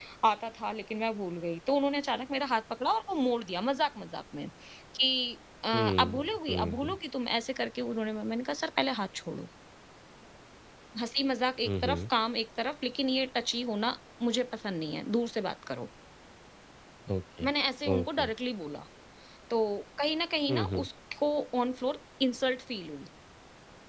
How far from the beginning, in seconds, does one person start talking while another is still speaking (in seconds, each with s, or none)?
5.7 s